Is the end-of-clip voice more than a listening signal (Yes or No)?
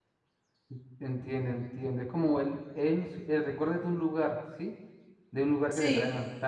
No